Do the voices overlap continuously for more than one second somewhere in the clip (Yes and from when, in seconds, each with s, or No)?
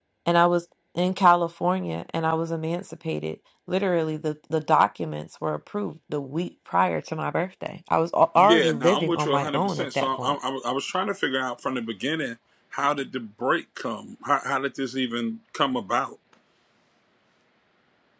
Yes, from 8.4 s